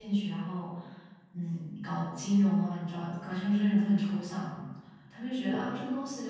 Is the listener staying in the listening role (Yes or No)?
Yes